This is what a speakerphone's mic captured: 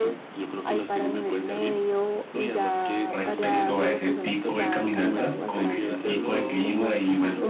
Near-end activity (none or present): present